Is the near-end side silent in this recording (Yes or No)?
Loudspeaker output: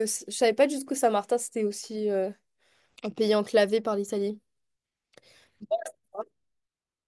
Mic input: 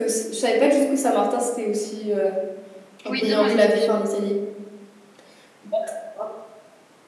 No